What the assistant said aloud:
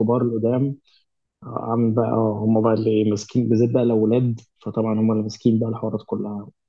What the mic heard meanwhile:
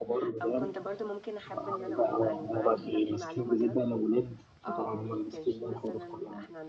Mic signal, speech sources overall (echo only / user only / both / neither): both